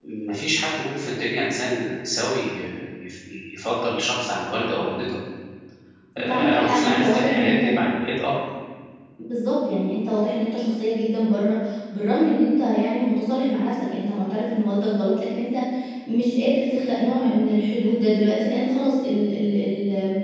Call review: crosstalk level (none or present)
present